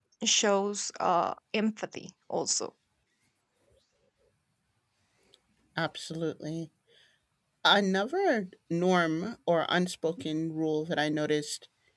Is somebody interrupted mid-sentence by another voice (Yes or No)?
No